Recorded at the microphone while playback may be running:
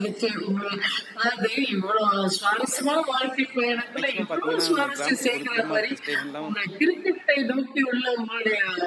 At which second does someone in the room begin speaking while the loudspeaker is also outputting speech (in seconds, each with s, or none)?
4.0 s